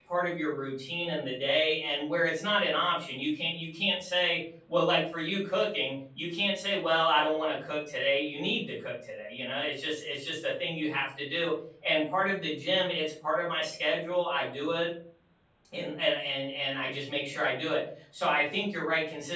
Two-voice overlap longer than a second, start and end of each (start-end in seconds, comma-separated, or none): none